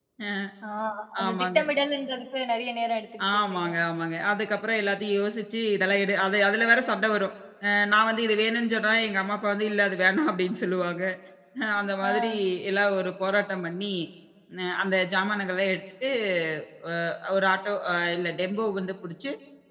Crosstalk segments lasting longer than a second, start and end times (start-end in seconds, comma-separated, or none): none